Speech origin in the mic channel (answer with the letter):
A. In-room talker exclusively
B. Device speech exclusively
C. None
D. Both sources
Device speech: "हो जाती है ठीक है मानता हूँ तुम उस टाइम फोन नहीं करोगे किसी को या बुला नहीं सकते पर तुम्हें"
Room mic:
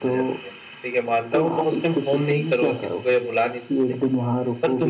D